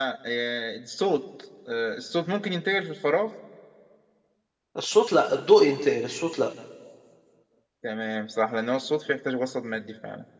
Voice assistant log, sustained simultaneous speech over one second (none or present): none